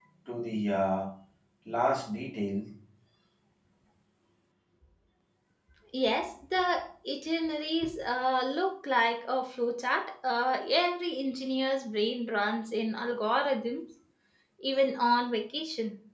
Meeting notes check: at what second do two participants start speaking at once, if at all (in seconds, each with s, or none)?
none